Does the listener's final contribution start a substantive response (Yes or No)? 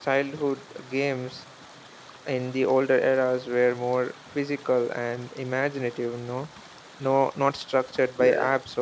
No